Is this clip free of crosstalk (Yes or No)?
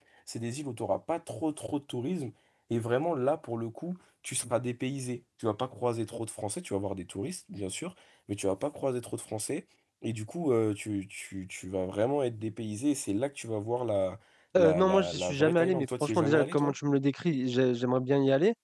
No